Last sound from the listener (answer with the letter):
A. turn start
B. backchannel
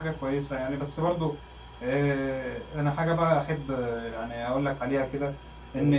B